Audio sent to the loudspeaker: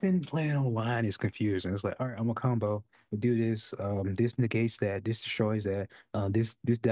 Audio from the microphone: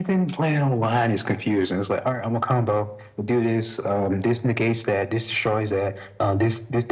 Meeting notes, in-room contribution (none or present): none